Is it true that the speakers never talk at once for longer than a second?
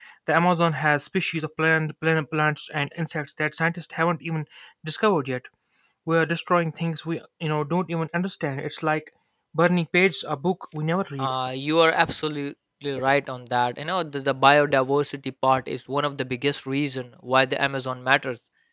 Yes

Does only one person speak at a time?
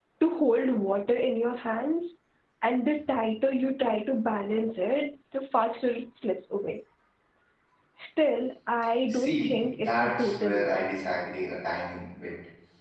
No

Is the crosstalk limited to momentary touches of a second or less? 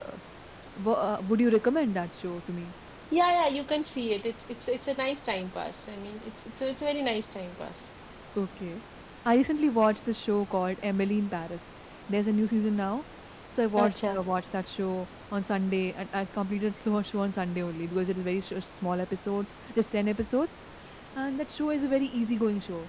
Yes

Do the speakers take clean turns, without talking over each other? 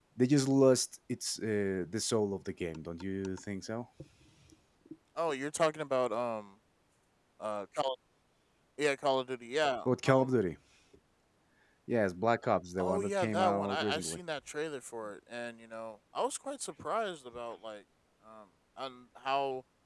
No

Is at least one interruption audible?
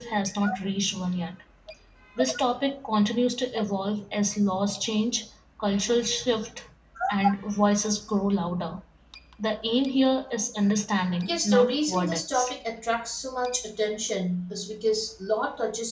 Yes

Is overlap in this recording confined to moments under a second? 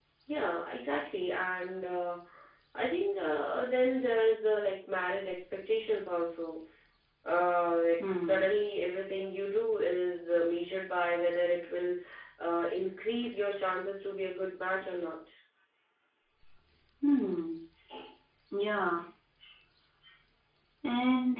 Yes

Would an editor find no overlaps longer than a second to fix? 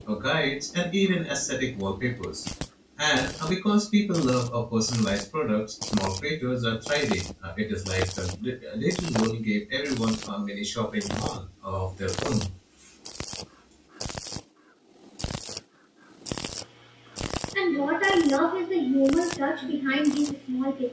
Yes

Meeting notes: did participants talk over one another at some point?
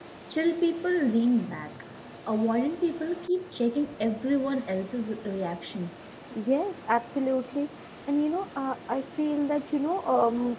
No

